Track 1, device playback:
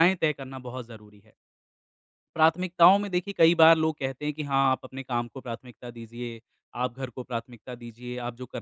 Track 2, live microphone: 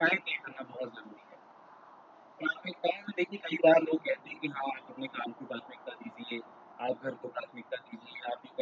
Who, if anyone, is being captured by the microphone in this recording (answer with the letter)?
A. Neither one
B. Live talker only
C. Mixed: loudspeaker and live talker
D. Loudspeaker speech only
D